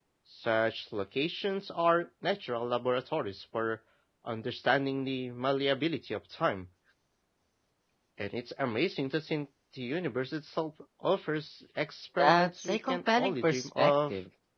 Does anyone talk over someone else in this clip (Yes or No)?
Yes